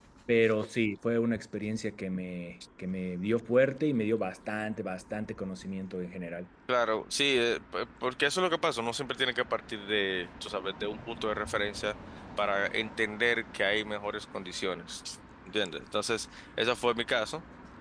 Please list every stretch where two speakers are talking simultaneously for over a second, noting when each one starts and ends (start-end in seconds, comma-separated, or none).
none